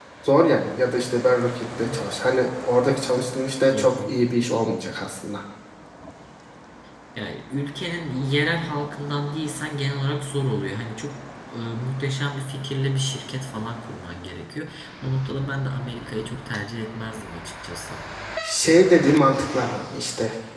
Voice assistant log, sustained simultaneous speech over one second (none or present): none